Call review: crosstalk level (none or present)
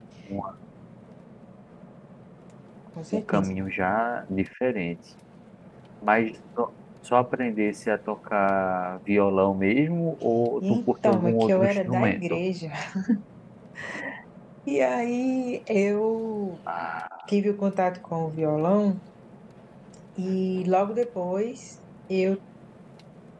present